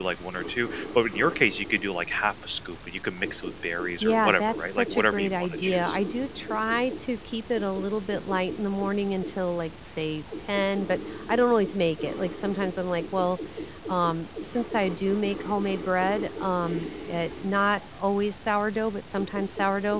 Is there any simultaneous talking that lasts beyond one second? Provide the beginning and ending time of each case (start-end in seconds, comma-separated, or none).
4.0-6.0